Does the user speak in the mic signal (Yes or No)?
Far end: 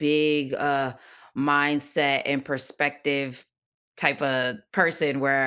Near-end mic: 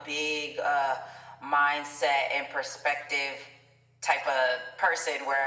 No